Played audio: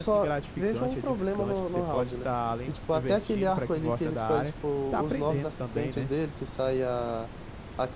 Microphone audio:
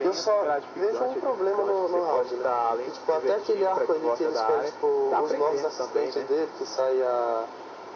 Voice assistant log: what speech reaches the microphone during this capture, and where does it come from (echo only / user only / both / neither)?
echo only